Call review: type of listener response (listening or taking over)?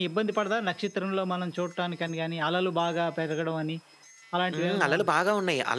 taking over